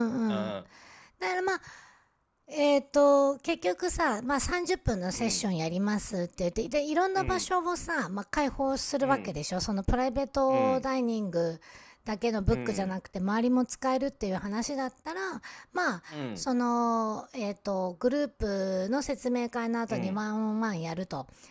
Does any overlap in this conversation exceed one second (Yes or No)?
No